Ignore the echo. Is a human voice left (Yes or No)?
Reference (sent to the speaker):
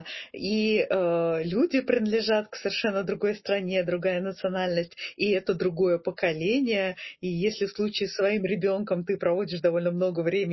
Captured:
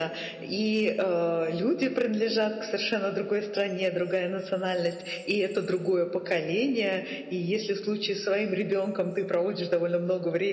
No